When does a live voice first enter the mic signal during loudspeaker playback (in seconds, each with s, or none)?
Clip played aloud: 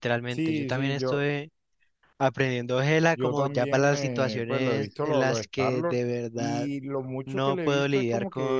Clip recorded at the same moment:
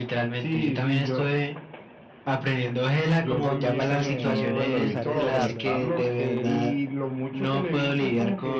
3.4 s